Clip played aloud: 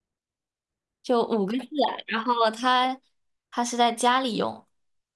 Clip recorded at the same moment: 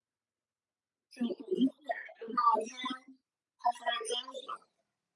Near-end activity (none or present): none